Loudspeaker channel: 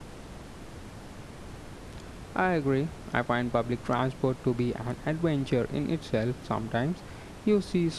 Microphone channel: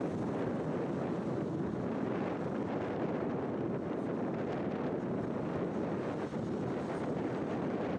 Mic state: neither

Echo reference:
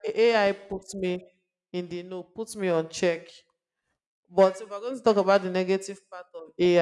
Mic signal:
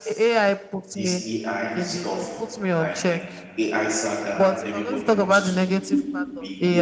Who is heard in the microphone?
both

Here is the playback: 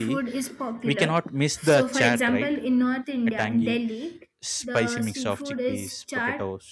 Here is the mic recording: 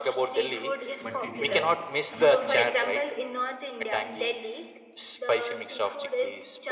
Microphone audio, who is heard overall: both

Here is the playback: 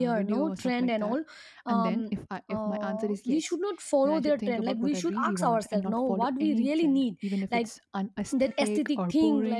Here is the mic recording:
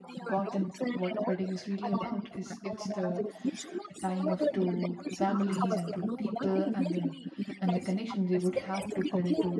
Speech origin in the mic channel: both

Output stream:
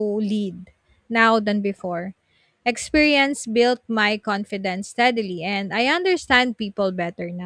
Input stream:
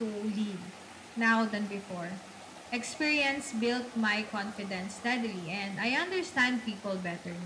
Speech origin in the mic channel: echo only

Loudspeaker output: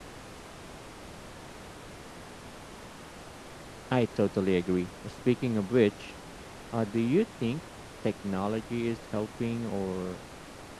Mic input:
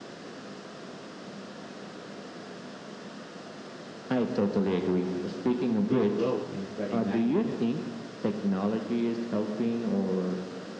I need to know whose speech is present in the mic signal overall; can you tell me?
both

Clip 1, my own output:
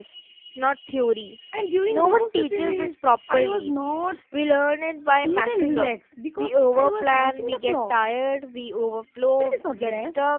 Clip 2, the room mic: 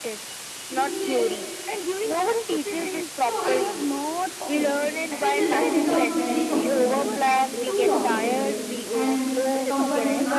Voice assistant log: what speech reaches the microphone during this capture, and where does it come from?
both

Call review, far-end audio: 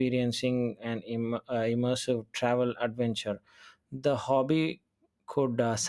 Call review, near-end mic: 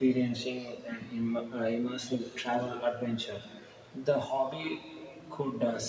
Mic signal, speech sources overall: echo only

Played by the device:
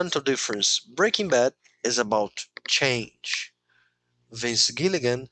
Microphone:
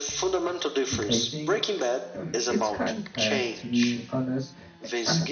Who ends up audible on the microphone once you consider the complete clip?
both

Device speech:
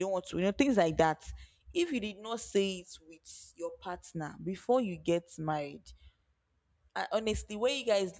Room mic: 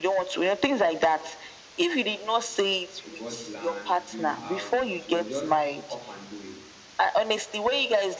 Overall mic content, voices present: both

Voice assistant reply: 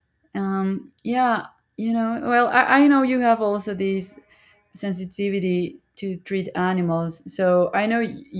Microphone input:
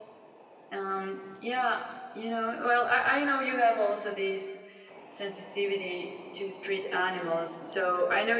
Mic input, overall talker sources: echo only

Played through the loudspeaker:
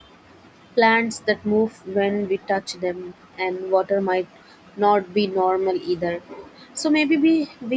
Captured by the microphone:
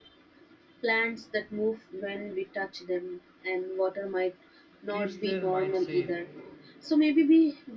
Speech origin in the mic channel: both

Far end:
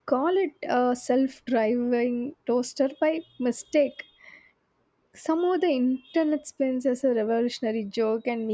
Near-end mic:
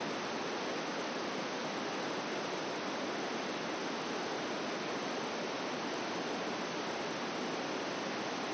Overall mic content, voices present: neither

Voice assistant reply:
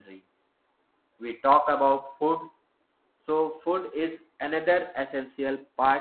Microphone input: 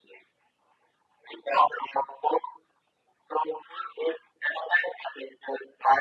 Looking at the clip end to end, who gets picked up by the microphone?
echo only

